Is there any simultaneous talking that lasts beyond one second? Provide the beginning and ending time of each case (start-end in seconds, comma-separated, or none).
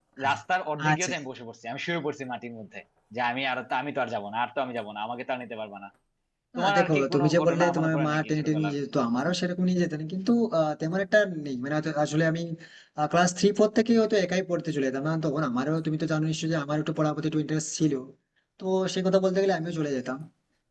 6.6-8.7